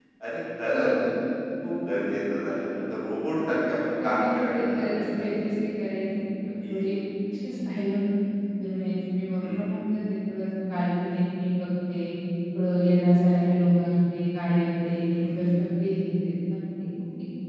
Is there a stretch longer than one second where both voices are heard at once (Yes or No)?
Yes